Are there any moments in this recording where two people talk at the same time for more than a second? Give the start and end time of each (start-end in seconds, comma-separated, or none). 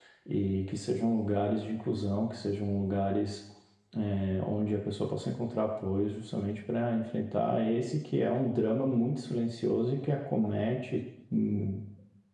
none